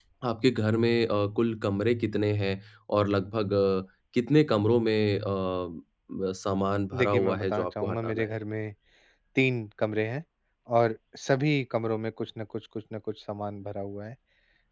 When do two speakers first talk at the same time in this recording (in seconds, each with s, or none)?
6.9 s